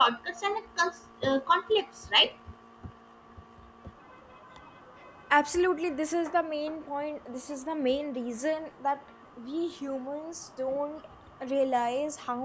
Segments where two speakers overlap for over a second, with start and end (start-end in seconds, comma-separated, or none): none